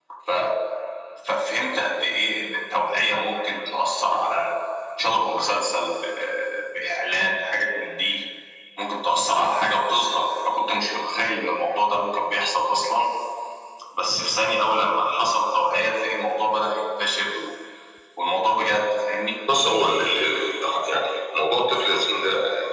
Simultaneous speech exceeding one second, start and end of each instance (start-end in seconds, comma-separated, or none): none